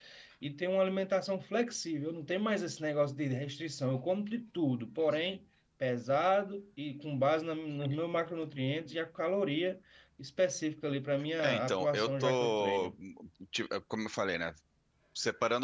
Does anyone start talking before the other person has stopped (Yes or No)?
Yes